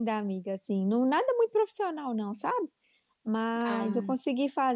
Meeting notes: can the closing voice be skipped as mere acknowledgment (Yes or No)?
Yes